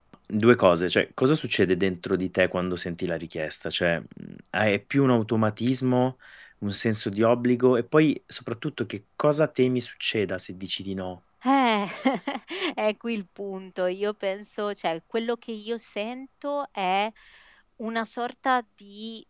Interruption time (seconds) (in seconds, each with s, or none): none